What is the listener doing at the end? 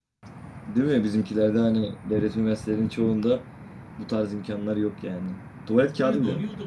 taking over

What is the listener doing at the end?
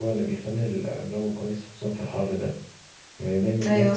listening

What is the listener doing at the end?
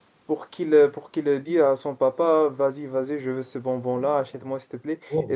listening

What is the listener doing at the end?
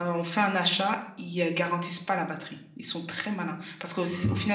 listening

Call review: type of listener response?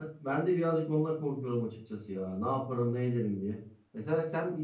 listening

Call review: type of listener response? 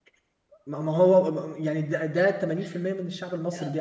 taking over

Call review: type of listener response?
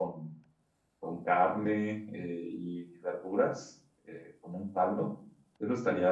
listening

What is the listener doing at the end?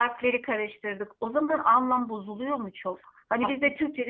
listening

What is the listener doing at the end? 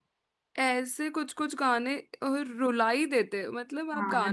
taking over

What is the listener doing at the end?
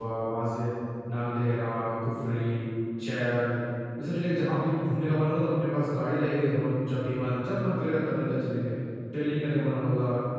listening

